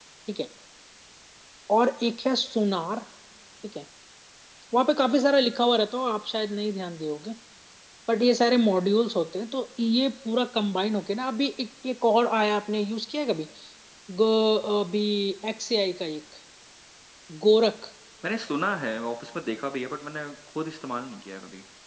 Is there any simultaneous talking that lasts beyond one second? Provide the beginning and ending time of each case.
none

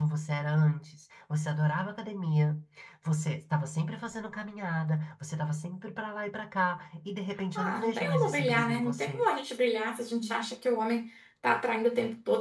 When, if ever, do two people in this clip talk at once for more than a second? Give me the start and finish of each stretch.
7.6-9.3

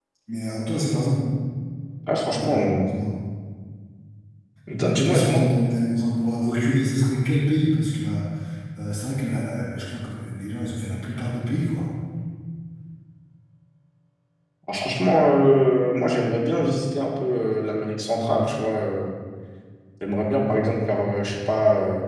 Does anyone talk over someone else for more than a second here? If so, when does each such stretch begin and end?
none

